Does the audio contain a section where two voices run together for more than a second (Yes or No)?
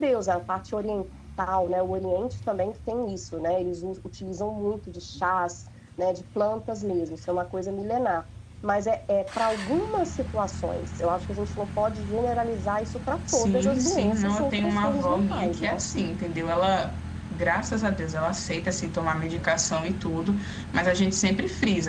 Yes